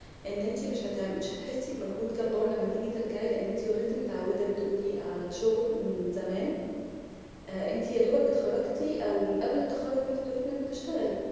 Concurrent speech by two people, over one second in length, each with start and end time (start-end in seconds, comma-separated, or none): none